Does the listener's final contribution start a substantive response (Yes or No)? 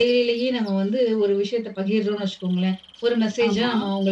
No